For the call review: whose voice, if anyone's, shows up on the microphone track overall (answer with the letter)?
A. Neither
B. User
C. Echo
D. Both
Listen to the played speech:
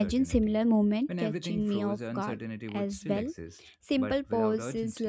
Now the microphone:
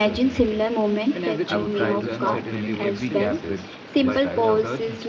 D